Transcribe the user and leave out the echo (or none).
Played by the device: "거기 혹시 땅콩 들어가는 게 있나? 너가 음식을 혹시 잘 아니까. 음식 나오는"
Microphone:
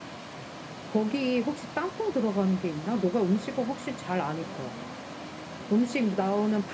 none